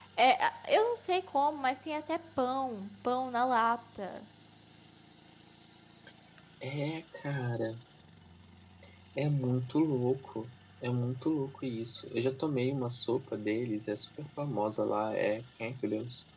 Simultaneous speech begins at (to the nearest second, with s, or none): none